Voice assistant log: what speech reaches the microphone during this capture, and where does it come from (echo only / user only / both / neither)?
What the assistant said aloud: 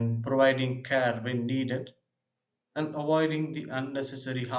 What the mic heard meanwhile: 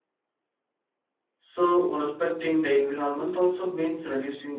user only